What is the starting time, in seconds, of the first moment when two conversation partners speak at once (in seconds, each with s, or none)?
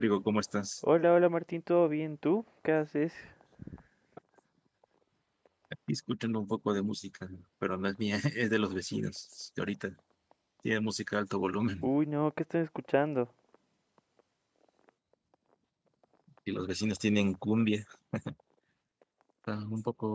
none